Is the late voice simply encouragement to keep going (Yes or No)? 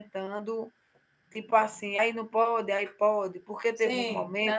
No